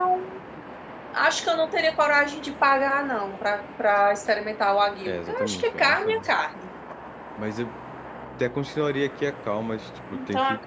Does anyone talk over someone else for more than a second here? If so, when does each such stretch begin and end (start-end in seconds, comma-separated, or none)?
5.1-6.3